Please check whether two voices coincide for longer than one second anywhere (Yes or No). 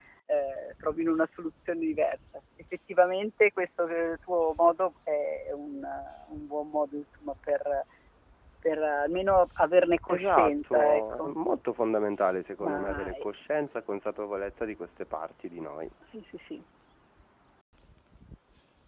Yes